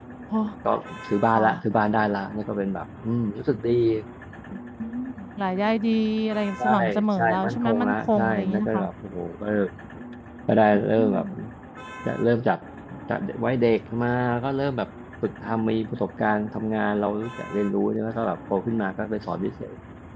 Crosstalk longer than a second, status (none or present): present